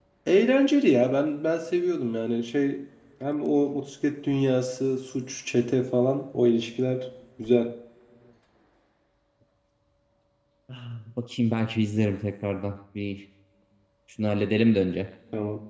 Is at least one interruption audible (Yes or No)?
No